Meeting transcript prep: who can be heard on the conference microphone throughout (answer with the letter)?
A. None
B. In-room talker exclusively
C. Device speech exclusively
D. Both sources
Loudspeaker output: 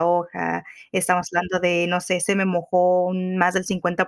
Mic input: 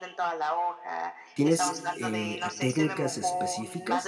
D